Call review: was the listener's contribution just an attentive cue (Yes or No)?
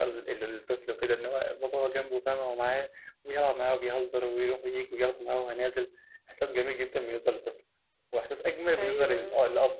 Yes